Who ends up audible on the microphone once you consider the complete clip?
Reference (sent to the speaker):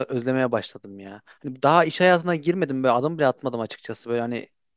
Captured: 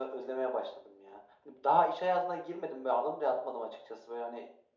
echo only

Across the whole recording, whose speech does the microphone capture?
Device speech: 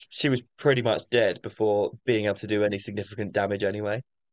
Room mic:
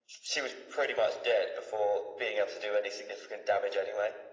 echo only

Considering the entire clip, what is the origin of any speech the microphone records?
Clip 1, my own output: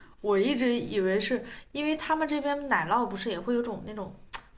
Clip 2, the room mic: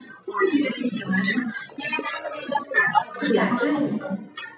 both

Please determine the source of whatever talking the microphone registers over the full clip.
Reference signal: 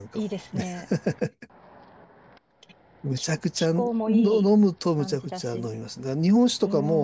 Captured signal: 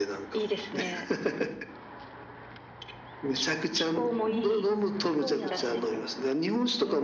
both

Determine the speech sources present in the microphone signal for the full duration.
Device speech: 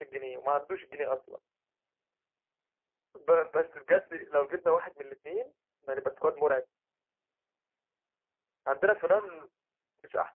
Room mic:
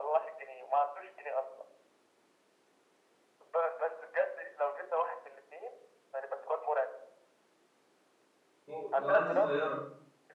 both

